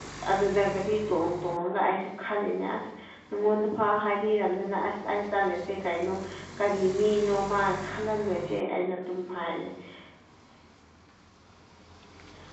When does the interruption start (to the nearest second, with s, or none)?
none